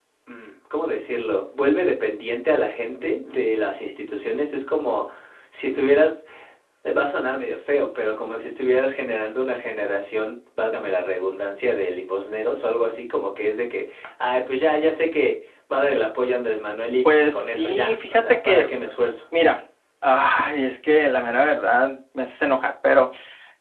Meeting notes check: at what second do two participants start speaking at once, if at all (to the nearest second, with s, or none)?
17 s